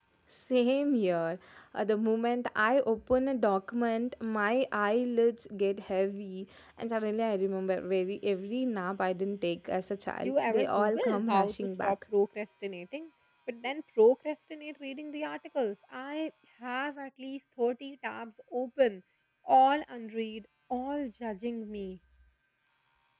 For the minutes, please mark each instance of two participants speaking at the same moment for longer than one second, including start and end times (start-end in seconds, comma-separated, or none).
10.2-11.9